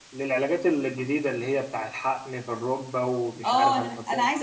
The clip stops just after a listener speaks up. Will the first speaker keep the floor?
No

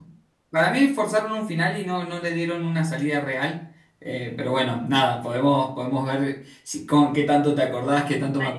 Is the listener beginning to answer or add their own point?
Yes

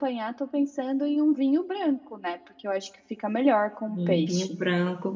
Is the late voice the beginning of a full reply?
Yes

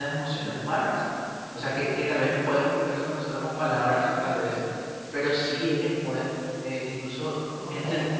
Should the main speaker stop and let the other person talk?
No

